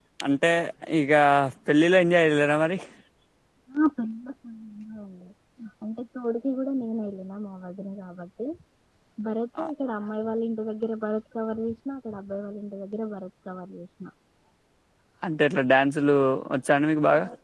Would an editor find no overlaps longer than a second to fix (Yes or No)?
Yes